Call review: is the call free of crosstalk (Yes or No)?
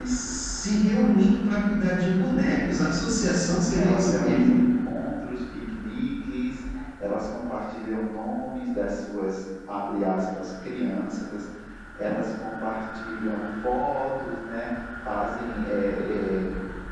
No